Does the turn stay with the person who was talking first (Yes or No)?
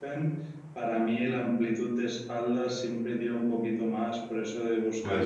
Yes